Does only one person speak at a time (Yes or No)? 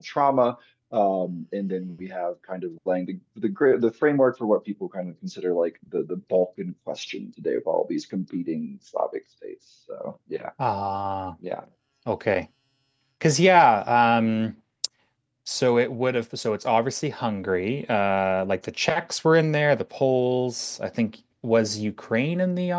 Yes